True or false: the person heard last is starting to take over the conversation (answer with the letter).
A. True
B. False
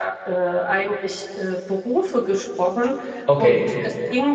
B